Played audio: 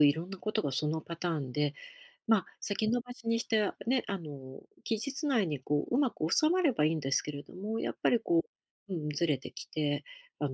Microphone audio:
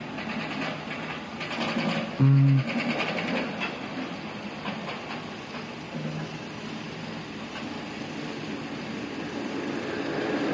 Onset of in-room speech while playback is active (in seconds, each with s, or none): 2.2 s